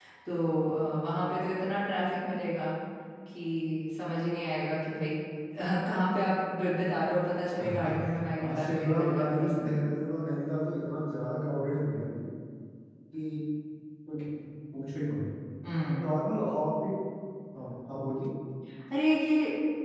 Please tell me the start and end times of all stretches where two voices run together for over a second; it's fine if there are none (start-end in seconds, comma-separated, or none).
8.3-9.8